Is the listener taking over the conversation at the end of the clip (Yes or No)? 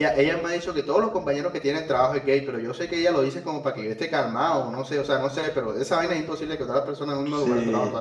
Yes